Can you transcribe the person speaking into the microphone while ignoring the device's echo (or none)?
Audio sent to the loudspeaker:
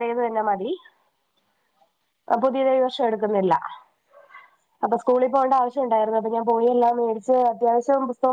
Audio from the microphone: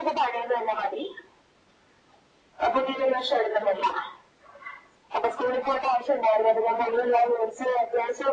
none